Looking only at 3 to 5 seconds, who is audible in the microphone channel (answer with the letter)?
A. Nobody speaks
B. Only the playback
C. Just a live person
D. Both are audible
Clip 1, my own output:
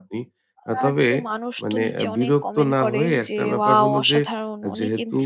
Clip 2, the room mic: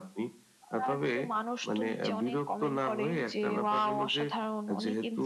B